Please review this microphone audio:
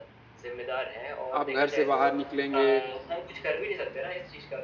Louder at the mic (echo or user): user